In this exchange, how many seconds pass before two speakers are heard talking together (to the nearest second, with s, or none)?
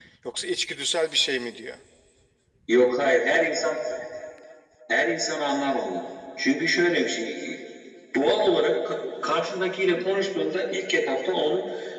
none